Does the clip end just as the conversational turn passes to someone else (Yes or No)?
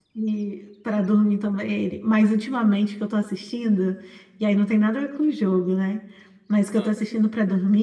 No